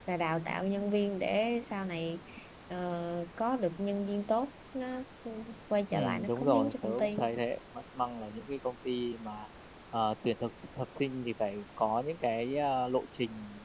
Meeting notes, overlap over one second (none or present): present